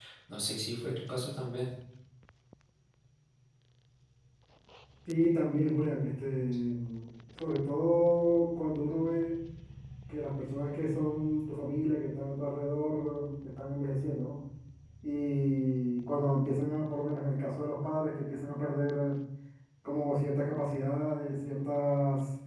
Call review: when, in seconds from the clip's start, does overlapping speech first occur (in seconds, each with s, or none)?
none